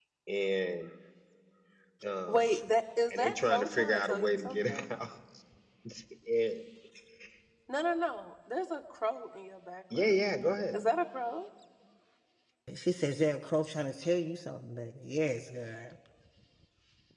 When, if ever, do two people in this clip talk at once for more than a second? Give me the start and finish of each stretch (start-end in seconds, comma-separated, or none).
3.1-4.9